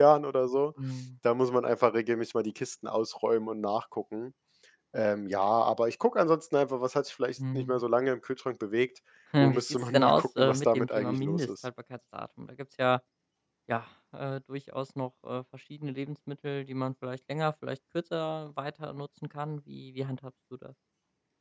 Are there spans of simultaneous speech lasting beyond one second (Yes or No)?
Yes